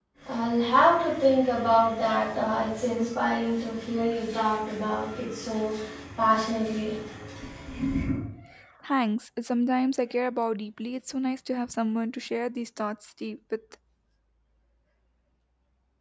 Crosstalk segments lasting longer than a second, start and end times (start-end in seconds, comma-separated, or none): none